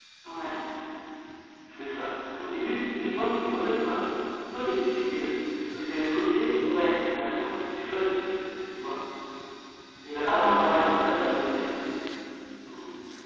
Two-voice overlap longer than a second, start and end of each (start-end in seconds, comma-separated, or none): 10.3-11.6